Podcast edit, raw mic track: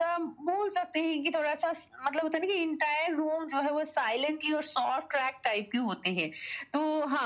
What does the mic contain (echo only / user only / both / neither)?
echo only